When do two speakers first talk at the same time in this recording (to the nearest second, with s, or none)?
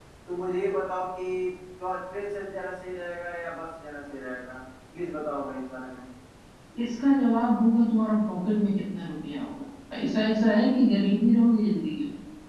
none